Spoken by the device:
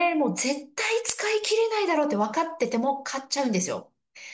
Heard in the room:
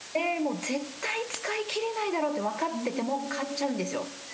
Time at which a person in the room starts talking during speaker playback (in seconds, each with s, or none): 2.7 s